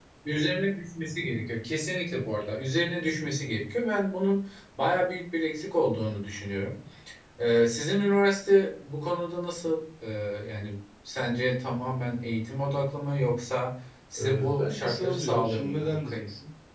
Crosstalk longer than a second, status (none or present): present